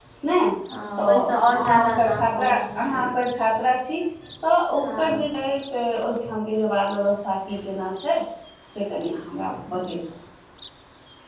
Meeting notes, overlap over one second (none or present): present